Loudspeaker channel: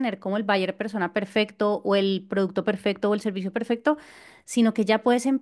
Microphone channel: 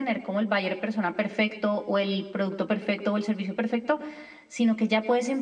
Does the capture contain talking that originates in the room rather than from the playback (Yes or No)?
No